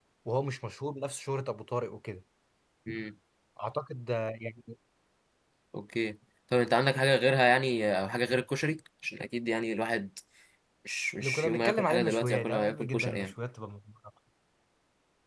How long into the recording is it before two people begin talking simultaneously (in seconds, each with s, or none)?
11.2 s